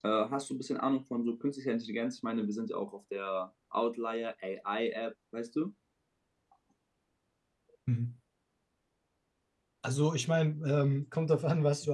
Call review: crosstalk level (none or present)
none